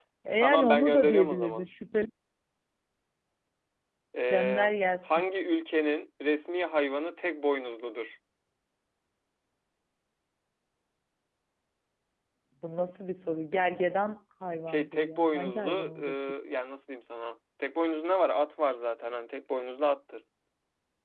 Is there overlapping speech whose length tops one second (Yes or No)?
Yes